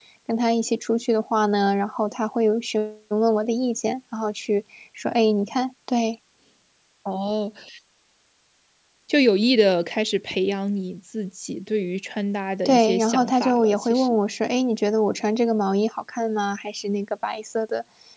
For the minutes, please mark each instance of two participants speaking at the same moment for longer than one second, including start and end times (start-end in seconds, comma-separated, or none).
12.6-14.2